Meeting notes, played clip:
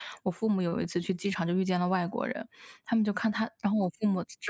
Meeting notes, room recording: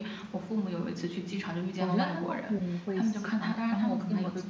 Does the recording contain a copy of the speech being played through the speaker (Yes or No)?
Yes